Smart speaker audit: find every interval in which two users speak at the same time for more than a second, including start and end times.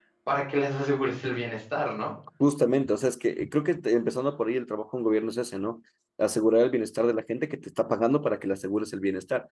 none

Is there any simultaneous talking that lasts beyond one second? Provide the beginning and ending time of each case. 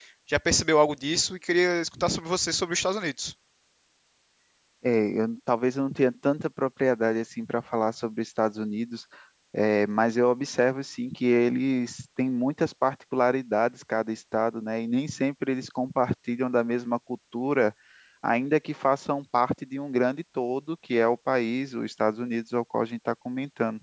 none

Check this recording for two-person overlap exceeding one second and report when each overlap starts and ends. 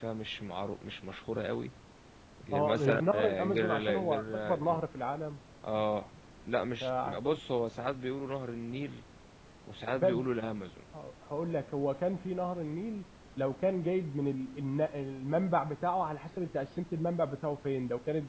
2.5-4.8

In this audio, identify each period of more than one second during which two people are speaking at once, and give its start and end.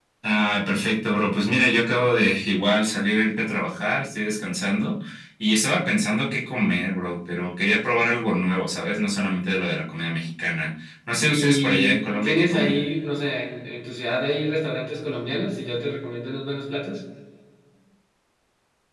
11.2-12.8

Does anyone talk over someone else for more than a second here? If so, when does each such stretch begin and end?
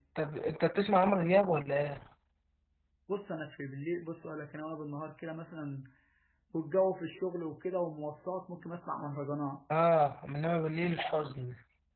none

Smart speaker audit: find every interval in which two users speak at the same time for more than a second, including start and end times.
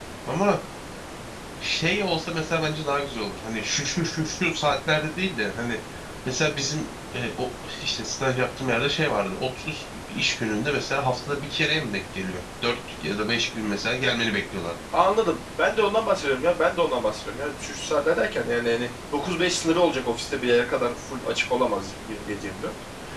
none

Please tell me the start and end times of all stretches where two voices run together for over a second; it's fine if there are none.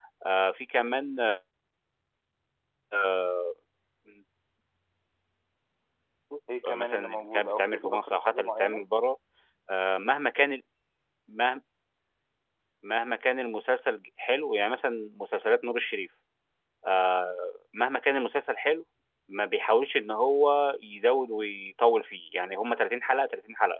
6.7-8.9

